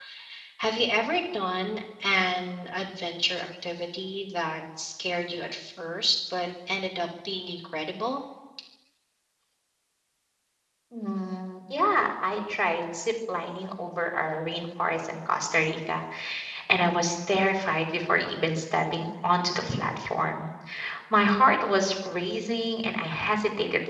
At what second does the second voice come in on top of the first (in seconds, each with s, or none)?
none